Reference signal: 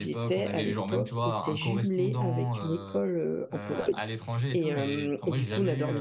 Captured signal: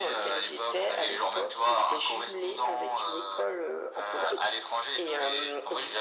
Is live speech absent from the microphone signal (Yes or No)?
Yes